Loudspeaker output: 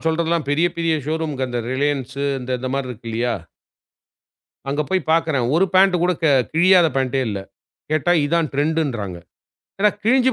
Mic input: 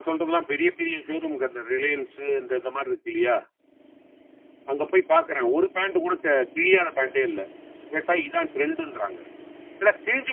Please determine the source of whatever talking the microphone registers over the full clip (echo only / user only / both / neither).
echo only